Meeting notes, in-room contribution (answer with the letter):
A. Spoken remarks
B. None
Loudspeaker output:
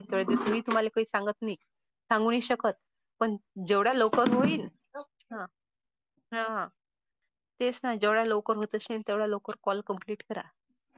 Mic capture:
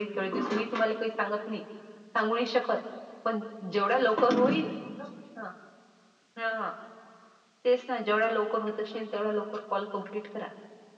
B